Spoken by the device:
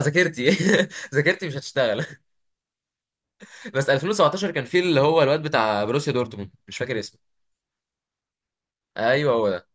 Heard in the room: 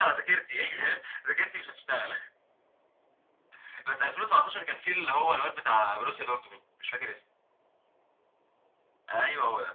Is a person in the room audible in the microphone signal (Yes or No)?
No